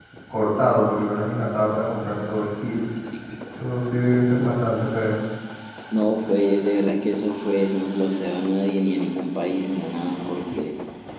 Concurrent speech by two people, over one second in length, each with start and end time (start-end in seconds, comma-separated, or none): none